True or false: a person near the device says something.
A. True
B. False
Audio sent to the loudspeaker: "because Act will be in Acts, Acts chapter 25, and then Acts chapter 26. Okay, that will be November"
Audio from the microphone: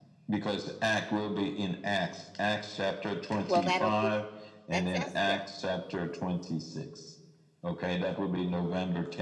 A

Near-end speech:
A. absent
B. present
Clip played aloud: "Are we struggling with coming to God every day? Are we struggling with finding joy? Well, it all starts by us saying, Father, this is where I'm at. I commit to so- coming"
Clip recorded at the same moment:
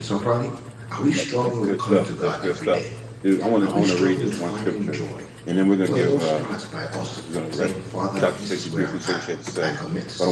B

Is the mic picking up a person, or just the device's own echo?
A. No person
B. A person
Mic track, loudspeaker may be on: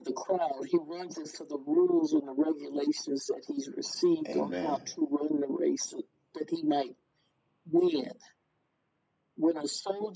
B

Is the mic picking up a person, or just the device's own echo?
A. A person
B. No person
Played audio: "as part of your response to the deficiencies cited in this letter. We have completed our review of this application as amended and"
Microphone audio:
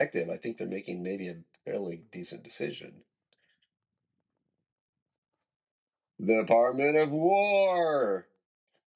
A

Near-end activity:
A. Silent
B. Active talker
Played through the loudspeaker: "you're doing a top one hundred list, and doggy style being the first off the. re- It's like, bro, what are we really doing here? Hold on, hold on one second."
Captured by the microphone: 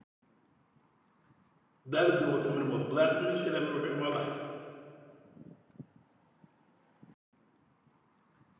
B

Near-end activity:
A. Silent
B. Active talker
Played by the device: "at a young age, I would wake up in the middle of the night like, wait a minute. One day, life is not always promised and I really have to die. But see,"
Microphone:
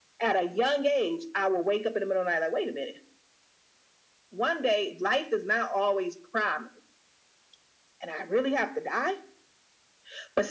A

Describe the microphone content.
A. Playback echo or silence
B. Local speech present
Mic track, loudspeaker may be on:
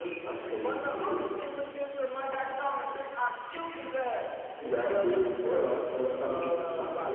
B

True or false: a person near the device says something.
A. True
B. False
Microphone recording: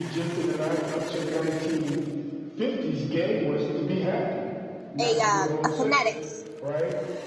A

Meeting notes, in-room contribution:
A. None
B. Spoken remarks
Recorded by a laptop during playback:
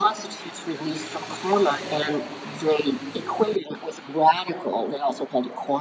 A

